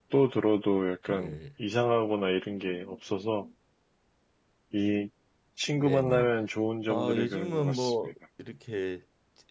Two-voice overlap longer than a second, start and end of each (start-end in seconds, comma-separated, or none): 6.9-8.1